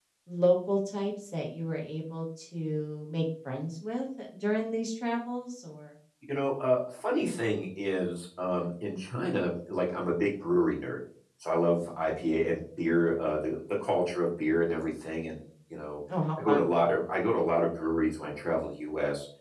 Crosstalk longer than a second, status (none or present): none